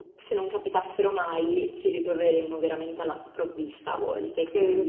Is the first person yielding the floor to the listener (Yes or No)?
Yes